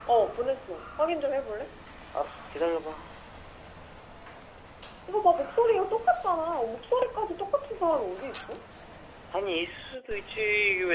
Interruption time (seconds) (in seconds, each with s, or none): none